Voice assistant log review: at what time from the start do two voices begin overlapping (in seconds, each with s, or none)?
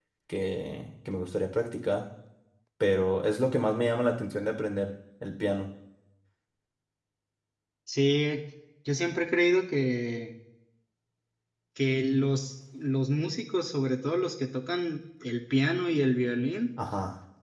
none